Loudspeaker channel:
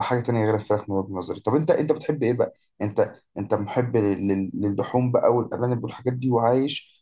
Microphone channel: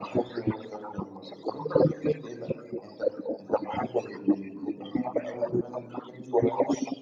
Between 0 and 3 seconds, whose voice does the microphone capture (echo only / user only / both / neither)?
echo only